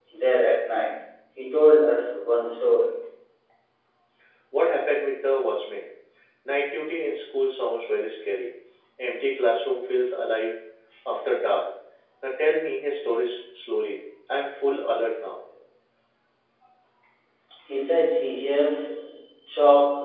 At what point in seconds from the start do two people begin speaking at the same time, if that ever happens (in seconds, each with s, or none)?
none